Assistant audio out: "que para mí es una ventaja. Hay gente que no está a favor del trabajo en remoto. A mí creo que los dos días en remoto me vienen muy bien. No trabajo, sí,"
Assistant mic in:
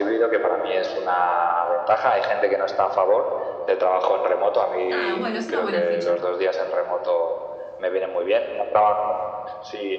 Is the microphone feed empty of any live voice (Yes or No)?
No